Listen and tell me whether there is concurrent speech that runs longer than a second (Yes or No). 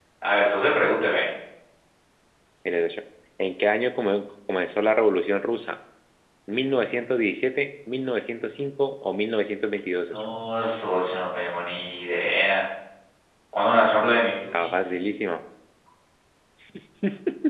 No